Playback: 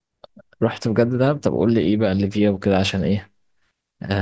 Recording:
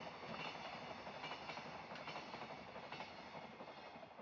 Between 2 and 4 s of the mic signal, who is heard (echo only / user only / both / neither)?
neither